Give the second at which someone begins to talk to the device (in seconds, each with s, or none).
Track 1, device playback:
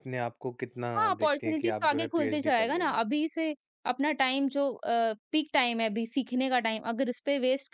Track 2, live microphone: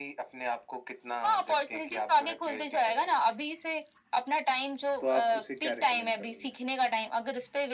5.0 s